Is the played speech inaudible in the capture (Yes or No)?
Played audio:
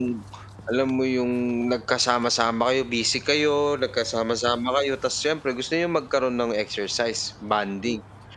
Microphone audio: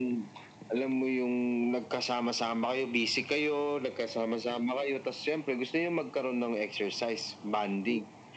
No